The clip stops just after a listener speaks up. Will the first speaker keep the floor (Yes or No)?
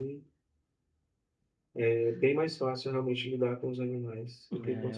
No